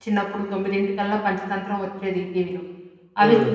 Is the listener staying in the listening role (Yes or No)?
Yes